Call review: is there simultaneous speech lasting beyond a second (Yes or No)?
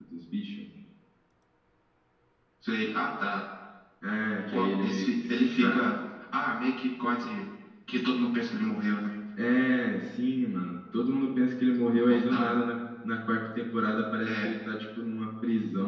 Yes